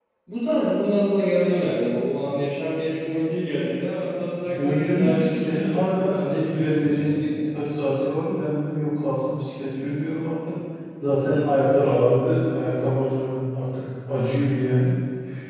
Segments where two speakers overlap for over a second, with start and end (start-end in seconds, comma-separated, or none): 4.6-7.4